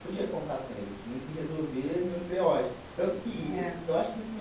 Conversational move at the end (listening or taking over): listening